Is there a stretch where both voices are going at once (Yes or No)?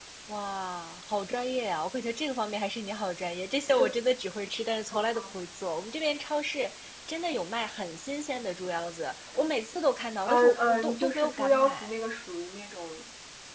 Yes